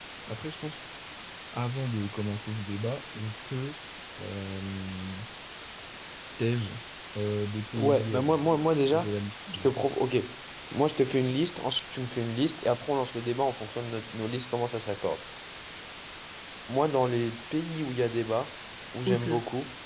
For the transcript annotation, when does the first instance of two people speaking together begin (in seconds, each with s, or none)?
7.7 s